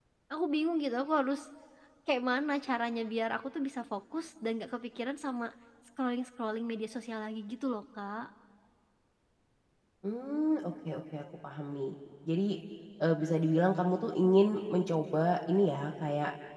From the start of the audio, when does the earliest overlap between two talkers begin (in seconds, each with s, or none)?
none